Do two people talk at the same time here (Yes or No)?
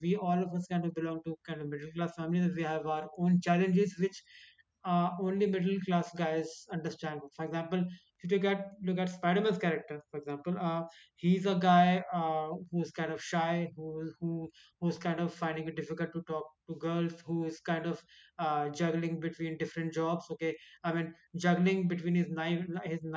No